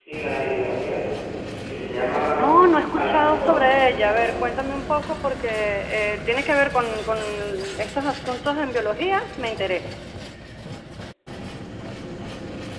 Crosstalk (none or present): present